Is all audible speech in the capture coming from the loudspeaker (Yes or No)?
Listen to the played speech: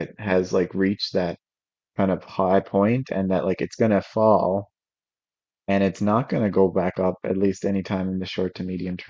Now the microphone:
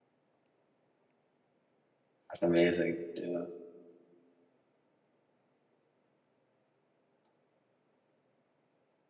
No